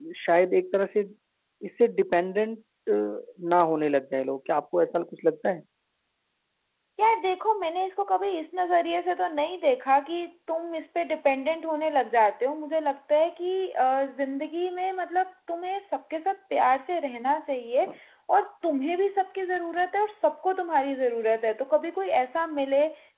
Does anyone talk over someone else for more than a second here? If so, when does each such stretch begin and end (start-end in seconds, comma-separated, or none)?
none